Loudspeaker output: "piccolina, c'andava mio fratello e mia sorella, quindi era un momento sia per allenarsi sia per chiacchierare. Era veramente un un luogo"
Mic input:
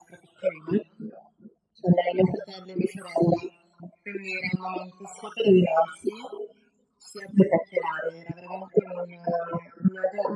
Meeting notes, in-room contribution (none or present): none